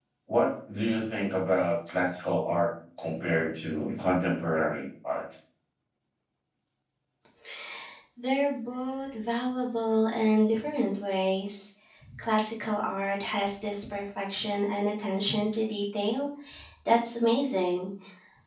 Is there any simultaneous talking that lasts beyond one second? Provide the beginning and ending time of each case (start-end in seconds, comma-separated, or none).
none